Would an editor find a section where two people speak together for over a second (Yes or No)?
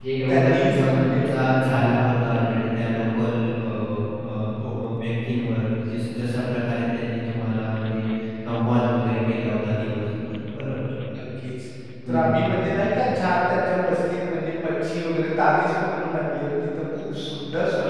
Yes